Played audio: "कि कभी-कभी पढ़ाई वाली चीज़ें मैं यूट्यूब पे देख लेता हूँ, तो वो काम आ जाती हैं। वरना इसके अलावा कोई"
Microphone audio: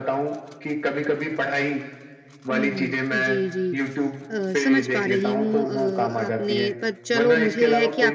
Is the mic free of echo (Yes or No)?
No